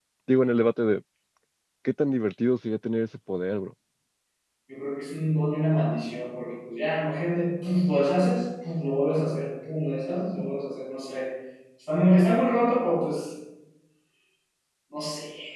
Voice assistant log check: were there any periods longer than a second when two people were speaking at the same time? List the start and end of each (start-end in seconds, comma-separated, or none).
none